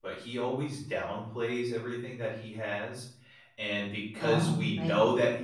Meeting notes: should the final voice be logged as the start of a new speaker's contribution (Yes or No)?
No